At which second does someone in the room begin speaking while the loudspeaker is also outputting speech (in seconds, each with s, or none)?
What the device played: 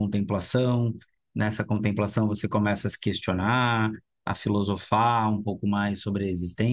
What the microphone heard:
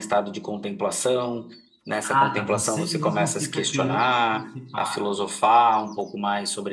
2.0 s